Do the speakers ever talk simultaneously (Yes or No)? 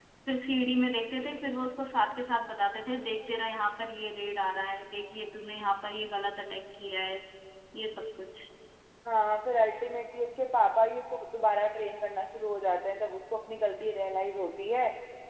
No